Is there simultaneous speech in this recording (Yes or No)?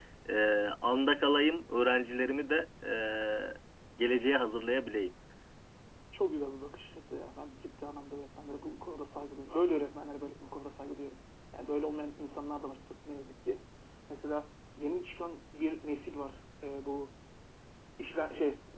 No